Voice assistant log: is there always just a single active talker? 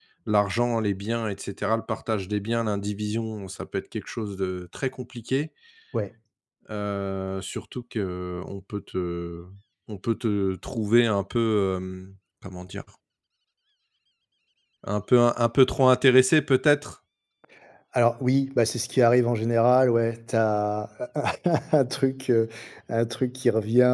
Yes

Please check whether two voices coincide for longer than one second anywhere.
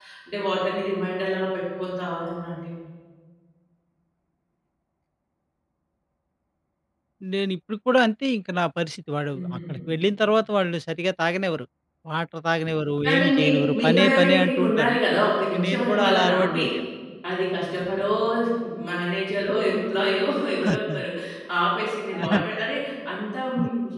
Yes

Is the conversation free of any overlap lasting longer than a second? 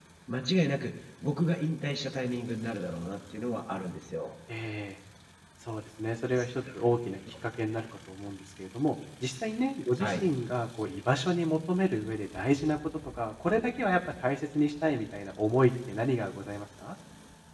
Yes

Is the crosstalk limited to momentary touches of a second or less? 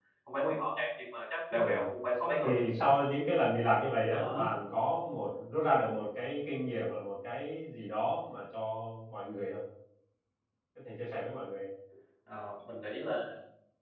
Yes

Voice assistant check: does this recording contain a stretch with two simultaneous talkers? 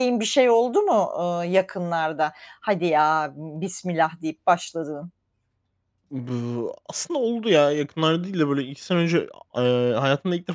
No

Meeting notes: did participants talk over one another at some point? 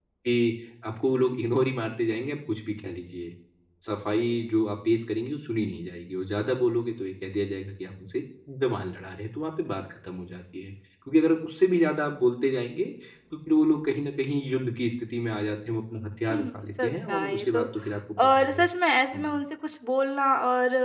Yes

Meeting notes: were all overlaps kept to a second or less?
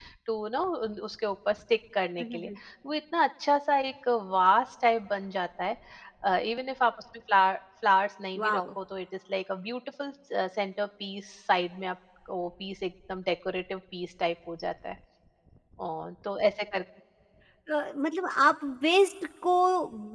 Yes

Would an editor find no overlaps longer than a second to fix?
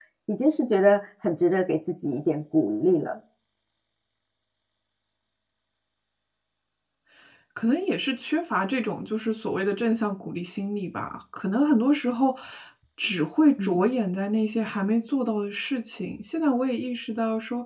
Yes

